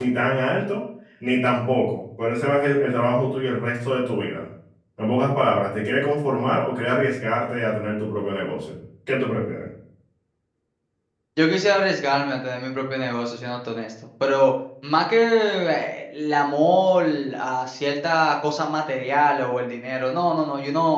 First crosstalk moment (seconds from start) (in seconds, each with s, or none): none